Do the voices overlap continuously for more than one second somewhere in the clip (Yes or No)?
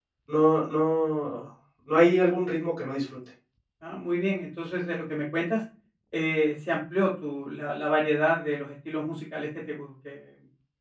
No